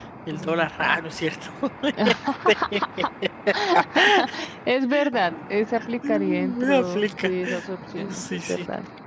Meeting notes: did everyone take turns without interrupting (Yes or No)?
No